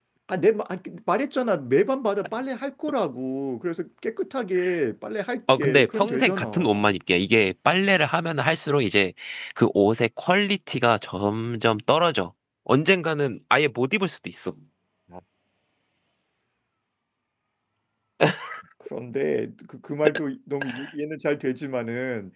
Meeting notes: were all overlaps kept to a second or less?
No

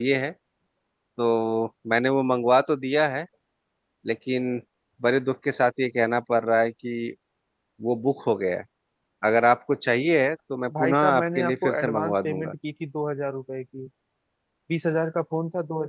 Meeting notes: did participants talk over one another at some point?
Yes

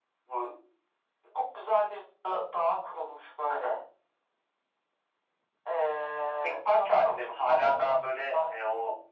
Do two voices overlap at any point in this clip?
Yes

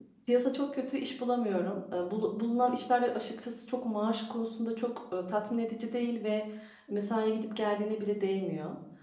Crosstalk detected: No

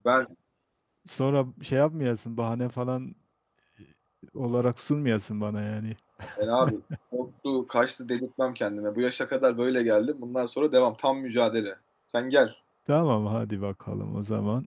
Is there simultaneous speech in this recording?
No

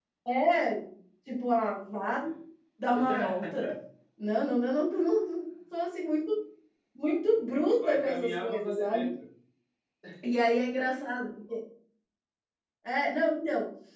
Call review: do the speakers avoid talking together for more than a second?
No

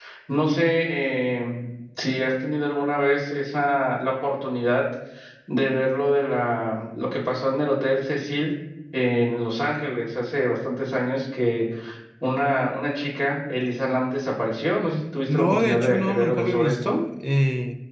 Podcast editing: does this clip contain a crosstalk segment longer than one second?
Yes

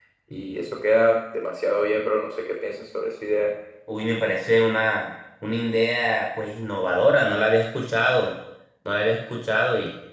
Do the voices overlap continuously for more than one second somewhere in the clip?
No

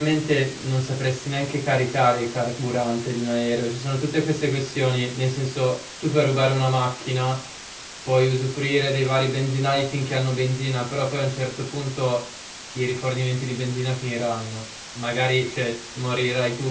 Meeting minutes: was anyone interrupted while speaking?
No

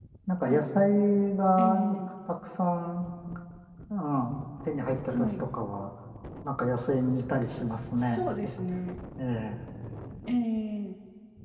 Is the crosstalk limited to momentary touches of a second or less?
Yes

